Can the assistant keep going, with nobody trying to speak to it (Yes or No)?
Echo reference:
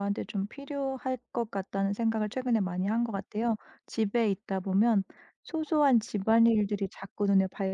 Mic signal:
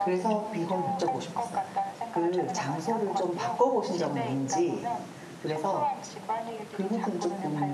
No